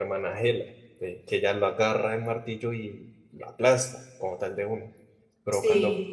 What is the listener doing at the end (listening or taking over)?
listening